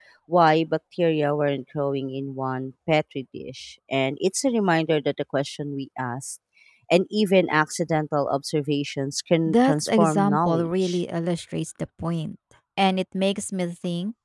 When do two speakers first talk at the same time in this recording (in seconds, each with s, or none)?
9.5 s